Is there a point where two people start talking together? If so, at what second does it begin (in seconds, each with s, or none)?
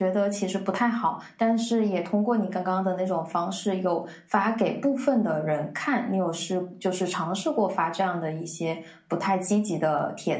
none